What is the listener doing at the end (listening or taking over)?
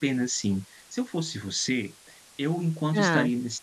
listening